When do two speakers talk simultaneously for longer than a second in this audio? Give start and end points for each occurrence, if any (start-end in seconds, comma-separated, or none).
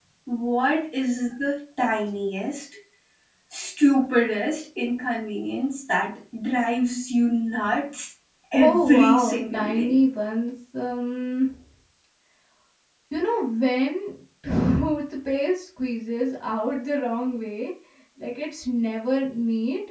8.5-10.0